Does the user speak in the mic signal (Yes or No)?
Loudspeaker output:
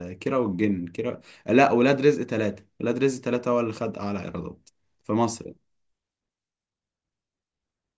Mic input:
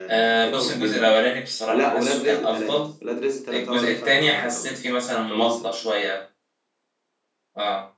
Yes